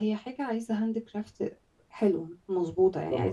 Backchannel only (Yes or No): Yes